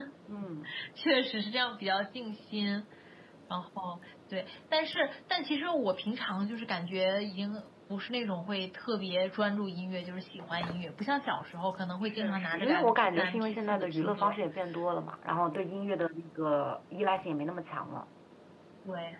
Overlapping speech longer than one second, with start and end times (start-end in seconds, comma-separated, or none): 12.0-14.4